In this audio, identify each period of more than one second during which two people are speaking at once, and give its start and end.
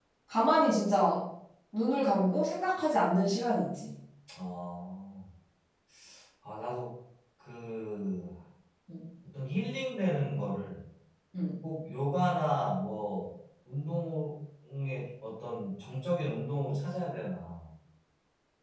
none

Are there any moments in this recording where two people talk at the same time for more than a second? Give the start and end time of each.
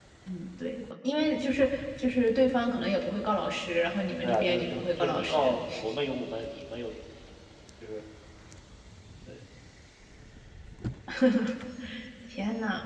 4.2-5.6

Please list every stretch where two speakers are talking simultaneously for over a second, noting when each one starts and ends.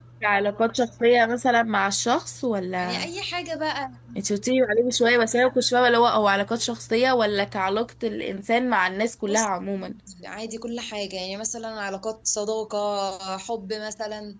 none

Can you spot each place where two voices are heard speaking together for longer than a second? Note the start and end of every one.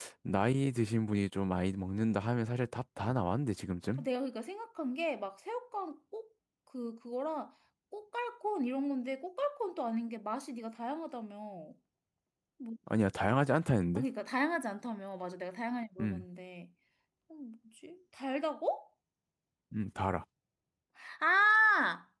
none

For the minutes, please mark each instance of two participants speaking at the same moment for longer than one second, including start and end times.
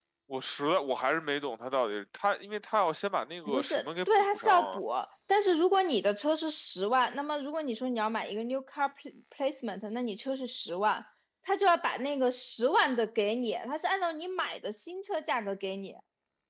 3.5-4.8

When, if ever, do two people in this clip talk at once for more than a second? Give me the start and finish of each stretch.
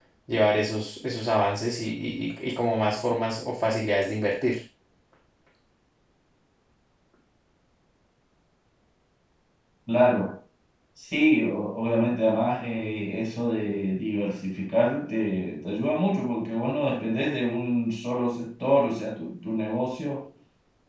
none

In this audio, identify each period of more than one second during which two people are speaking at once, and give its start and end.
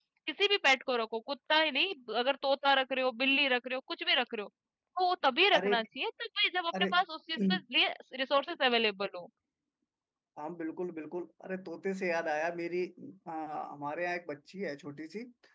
none

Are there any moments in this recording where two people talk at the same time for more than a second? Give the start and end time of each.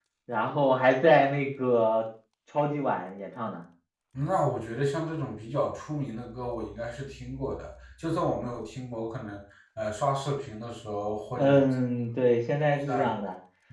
none

